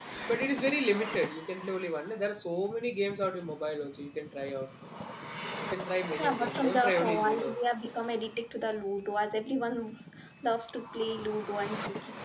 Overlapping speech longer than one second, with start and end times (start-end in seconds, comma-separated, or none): 6.2-7.6